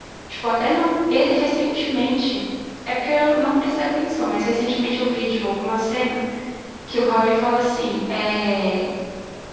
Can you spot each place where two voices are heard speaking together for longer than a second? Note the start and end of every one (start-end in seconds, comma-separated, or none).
none